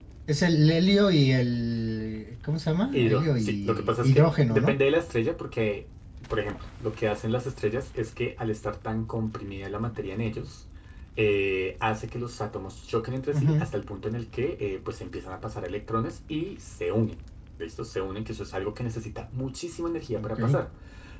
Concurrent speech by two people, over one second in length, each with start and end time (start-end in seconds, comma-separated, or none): 2.9-4.7